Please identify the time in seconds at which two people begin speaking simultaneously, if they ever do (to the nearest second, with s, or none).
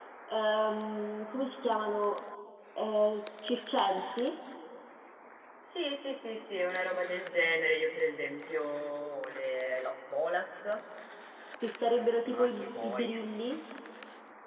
12 s